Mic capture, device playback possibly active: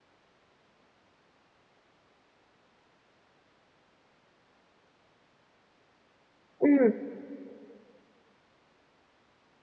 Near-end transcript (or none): Ừm.